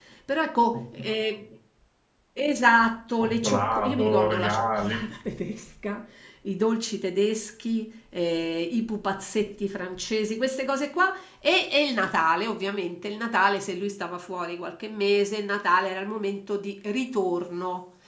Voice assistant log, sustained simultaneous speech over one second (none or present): present